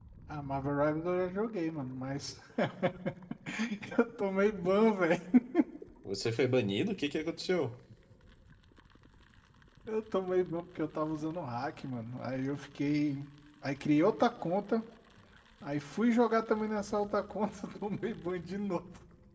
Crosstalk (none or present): none